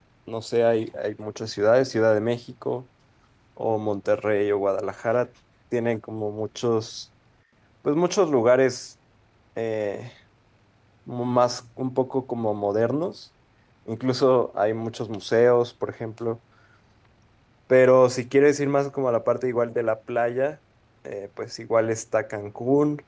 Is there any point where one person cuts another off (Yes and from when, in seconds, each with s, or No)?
No